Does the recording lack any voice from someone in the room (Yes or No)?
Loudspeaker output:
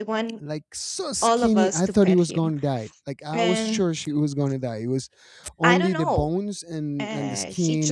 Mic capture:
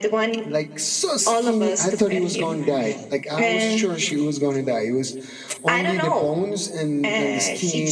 Yes